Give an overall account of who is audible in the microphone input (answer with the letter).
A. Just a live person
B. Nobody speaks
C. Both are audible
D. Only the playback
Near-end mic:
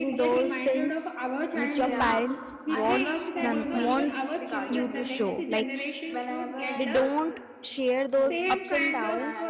C